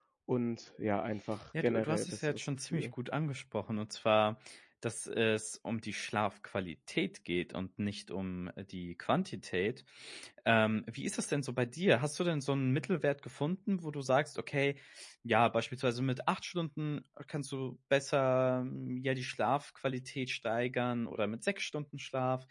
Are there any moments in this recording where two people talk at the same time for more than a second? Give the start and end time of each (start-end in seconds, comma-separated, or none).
1.6-2.9